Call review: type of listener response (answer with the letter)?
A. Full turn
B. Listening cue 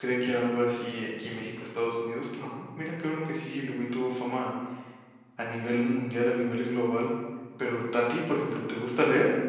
B